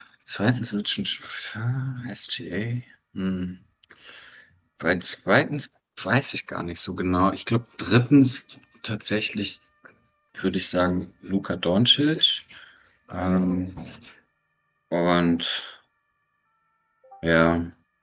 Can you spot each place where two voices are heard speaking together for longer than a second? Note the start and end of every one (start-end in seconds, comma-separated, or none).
none